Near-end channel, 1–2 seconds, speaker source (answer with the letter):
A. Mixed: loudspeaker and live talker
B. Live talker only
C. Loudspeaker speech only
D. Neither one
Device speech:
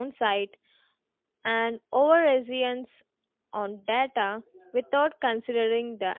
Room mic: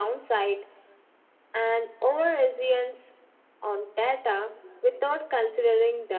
C